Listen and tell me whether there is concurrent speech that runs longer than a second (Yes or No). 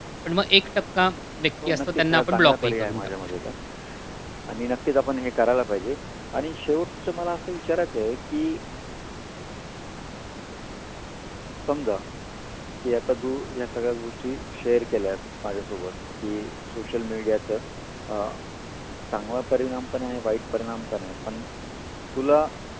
Yes